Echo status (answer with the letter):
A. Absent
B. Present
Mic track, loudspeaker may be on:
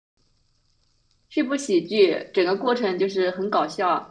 A